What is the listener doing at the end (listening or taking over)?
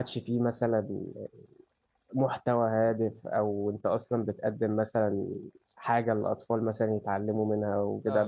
listening